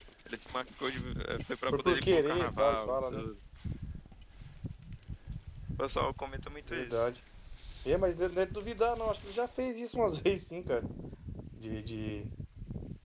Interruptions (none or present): present